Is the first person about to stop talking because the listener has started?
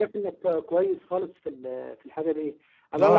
No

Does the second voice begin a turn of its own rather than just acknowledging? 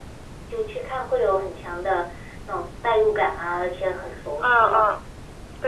Yes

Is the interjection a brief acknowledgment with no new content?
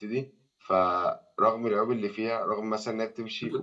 No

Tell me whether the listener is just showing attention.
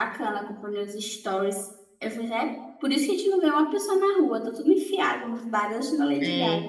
No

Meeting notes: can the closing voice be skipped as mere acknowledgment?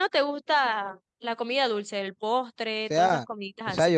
No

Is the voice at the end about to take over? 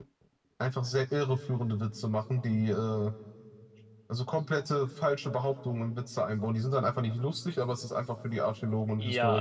Yes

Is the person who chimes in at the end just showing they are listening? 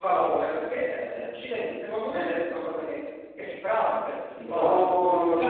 No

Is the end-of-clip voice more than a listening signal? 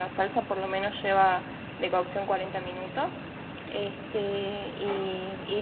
No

